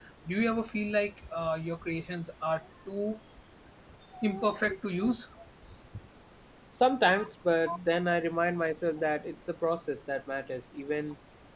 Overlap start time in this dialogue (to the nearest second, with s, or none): none